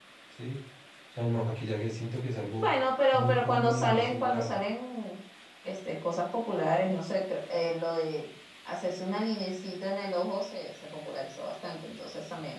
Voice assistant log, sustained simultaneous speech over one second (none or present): present